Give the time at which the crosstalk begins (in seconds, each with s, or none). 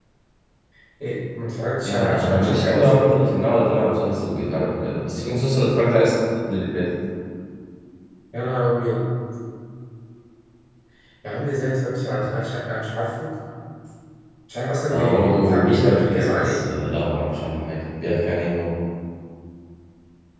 1.8 s